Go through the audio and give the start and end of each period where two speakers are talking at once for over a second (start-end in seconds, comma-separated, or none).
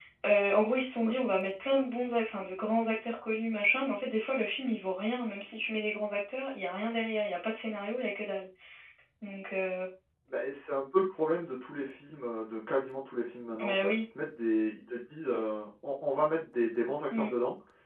none